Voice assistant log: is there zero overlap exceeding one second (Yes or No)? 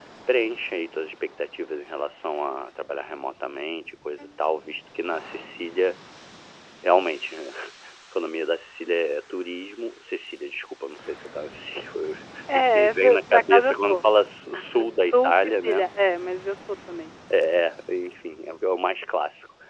No